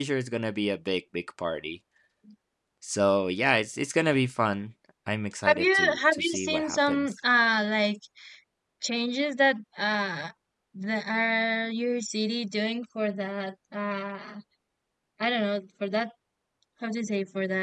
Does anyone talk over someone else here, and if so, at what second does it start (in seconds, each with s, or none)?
5.4 s